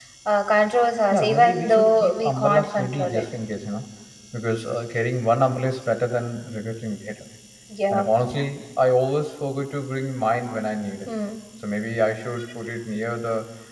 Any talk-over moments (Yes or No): Yes